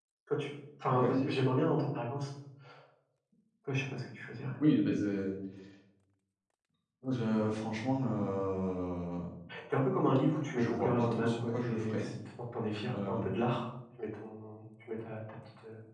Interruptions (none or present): present